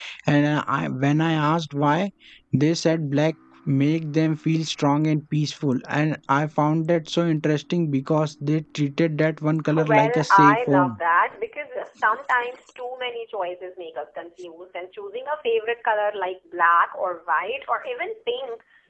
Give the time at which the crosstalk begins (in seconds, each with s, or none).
9.7 s